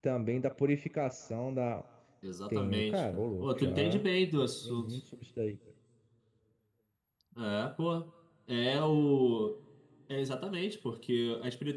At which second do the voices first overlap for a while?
2.5 s

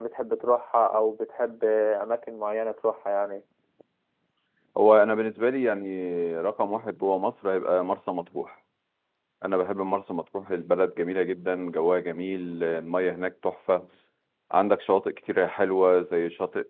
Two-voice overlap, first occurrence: none

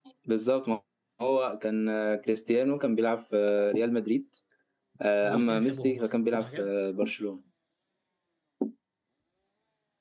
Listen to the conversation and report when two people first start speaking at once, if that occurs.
5.2 s

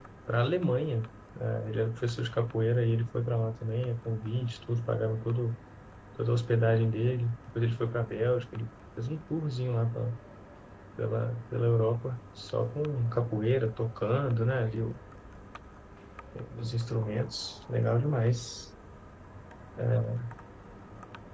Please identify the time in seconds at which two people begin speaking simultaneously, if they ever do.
none

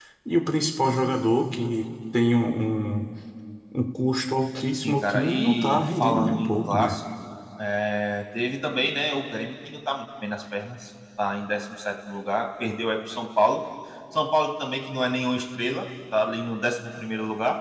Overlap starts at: 4.7 s

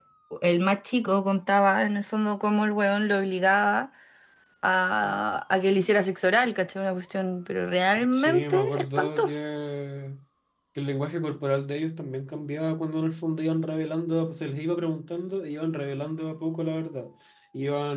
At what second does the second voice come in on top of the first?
8.0 s

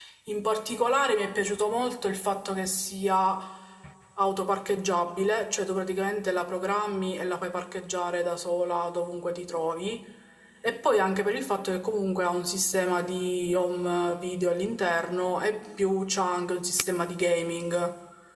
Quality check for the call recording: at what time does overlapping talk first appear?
none

